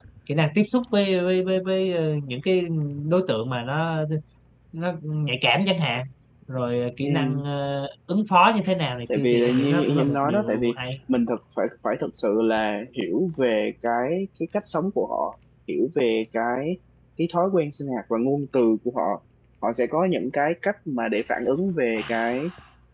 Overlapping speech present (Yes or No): Yes